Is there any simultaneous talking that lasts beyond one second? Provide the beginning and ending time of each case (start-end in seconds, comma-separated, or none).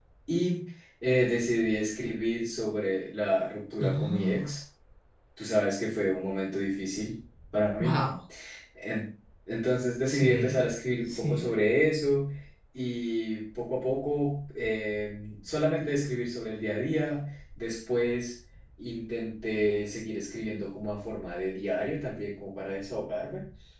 none